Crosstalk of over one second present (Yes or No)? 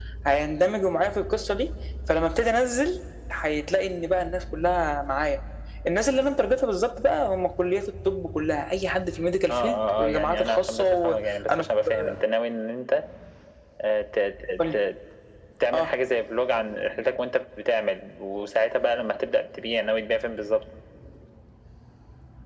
Yes